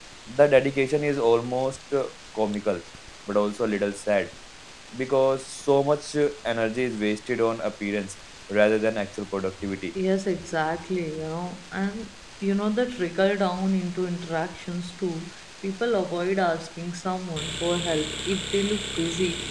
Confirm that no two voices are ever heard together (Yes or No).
Yes